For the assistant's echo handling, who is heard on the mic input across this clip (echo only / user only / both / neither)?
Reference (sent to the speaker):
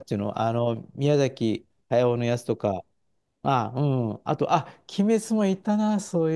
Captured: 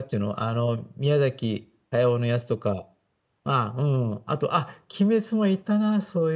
echo only